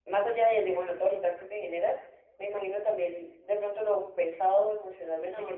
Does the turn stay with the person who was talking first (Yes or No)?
Yes